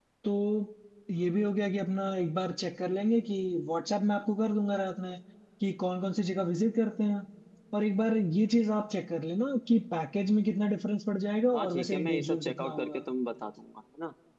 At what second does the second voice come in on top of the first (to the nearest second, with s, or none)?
12 s